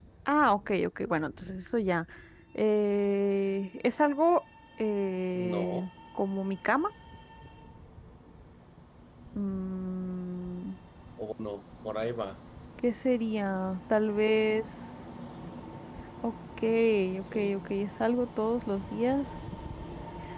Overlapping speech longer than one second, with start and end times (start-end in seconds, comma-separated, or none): none